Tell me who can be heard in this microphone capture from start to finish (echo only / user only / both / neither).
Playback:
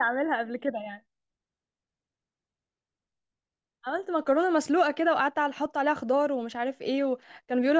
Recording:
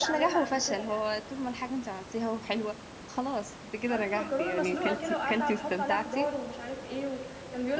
both